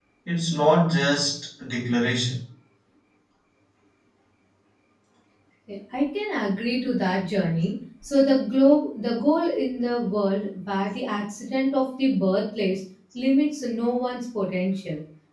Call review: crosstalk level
none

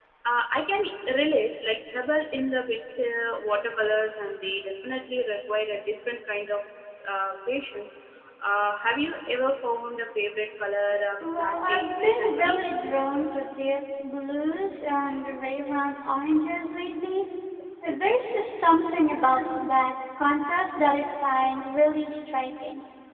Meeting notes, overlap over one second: present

